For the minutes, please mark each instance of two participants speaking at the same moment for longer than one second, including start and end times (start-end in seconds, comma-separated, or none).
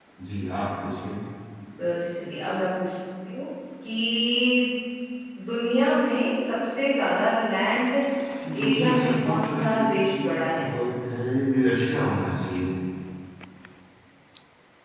8.5-10.6